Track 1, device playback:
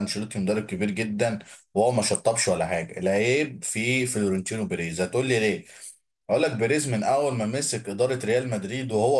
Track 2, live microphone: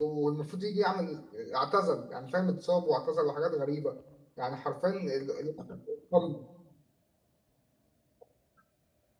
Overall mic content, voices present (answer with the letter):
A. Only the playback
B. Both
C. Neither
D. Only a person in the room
D